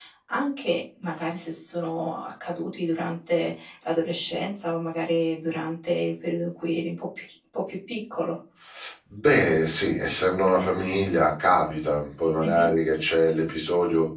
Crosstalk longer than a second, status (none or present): none